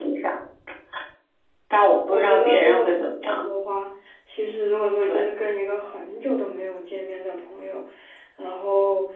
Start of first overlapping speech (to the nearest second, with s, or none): 2 s